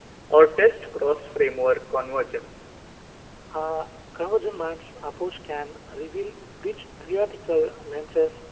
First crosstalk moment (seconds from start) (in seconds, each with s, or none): none